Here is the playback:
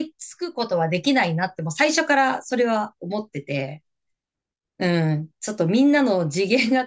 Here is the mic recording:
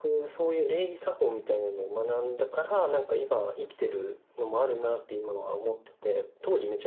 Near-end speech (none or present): present